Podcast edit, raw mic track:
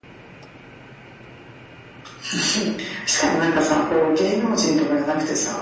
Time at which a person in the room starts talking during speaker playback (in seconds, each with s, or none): none